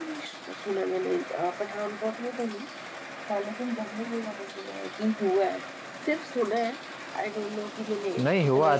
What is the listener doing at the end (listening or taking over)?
taking over